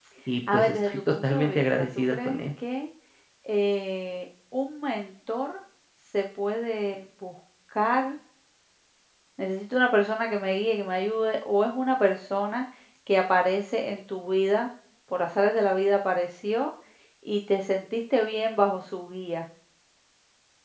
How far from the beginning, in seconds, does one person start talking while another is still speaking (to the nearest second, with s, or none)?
1 s